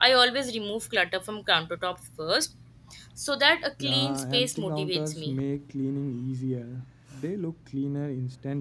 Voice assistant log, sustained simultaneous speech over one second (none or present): present